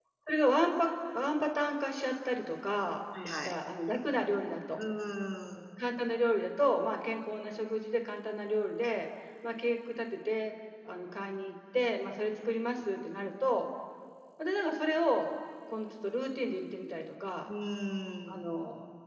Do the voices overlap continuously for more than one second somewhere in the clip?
No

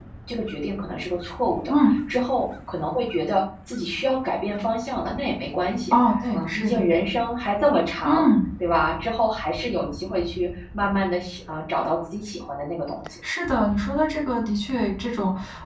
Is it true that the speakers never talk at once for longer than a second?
Yes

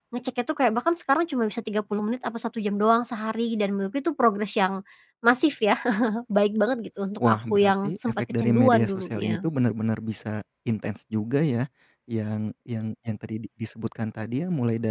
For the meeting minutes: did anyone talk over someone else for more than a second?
Yes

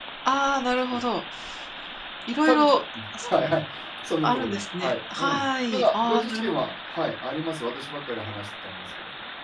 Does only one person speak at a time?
No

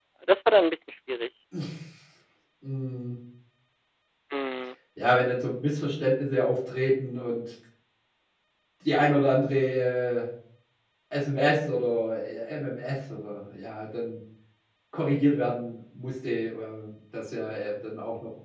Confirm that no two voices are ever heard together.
Yes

